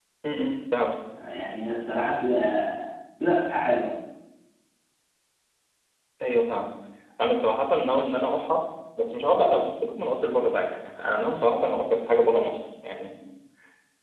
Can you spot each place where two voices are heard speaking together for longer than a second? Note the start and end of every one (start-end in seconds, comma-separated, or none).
none